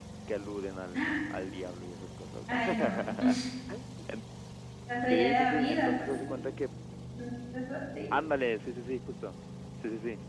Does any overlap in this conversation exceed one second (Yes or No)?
Yes